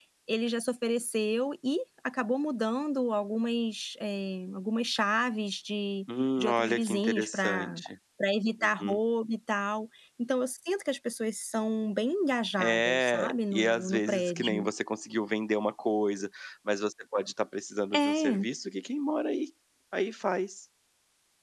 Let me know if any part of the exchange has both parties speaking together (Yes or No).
Yes